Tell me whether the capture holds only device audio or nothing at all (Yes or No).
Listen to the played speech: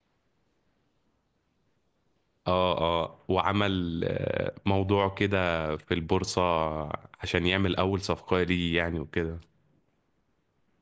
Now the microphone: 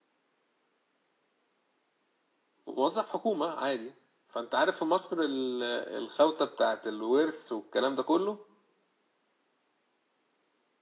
No